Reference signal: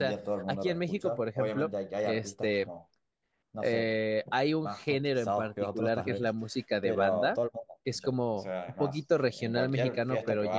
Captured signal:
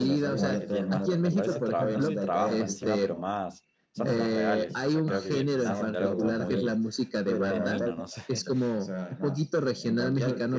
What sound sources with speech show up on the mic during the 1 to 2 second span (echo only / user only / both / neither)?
both